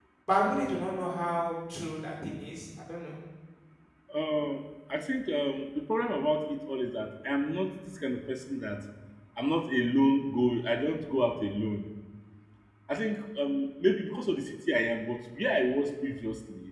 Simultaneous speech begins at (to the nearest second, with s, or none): none